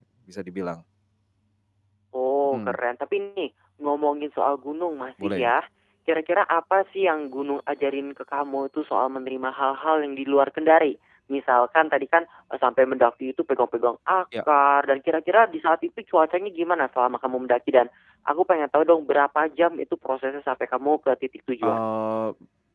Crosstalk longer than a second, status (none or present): none